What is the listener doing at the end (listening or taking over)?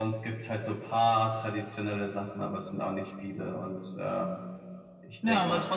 taking over